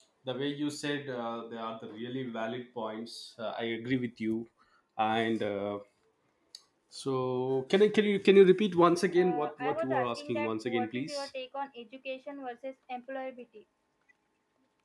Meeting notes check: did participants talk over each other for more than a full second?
Yes, from 9.2 s

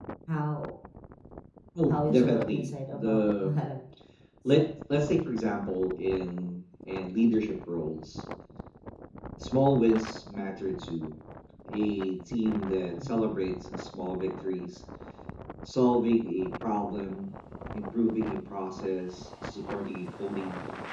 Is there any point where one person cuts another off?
Yes, from 1.9 s

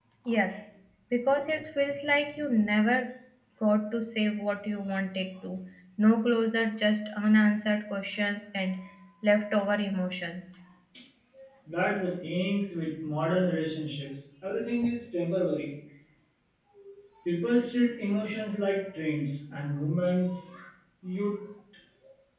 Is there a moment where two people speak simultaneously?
No

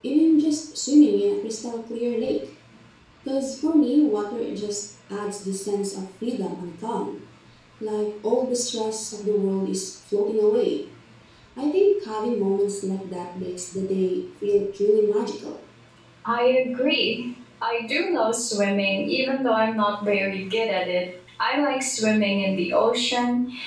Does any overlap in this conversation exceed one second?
No

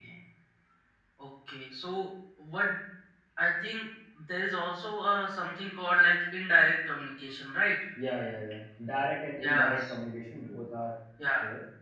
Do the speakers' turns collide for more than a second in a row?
No

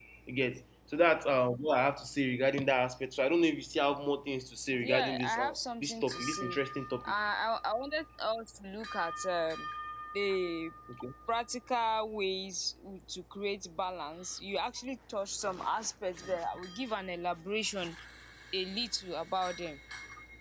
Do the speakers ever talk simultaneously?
Yes, from 4.8 s

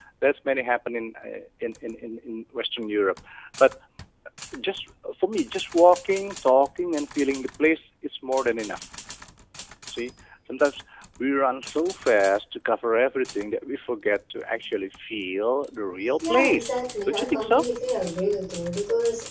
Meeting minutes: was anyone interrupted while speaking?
Yes, from 16.2 s

